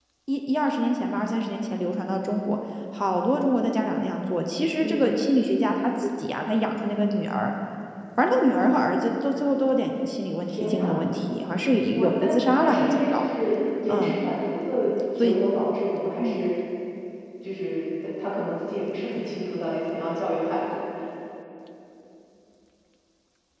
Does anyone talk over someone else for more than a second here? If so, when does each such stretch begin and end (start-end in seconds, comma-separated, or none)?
11.9-13.2